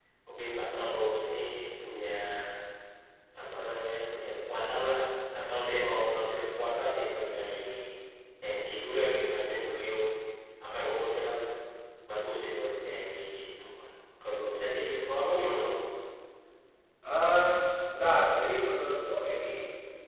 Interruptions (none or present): none